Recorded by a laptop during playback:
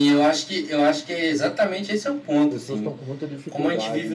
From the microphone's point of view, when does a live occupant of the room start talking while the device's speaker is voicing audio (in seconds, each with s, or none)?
2.3 s